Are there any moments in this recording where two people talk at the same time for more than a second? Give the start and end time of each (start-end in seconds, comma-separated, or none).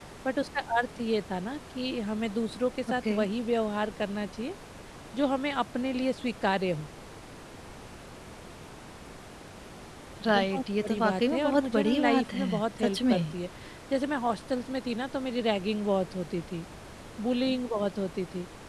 10.3-13.2